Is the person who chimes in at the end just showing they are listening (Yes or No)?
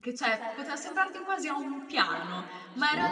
Yes